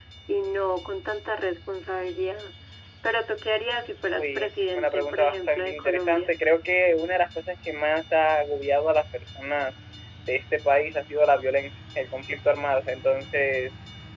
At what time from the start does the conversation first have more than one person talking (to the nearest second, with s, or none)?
4 s